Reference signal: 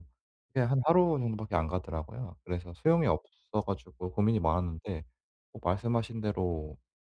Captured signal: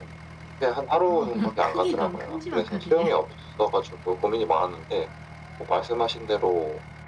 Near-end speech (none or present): present